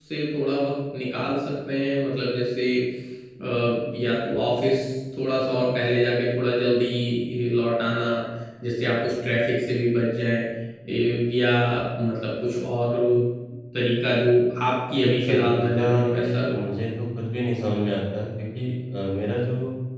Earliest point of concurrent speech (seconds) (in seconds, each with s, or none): 14.9 s